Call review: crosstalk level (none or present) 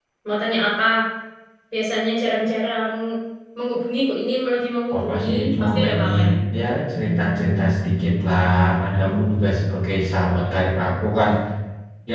present